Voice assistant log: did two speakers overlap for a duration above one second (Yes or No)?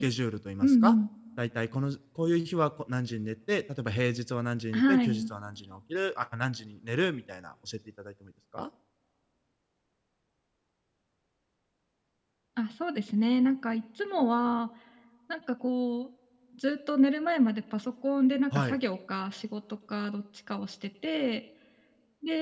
No